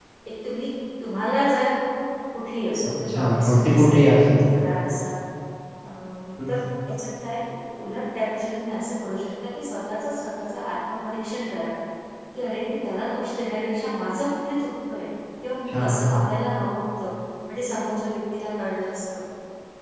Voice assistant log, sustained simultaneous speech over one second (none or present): present